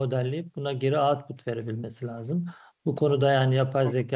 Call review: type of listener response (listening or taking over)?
listening